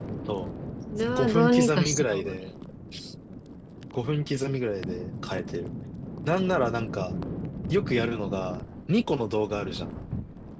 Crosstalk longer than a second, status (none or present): present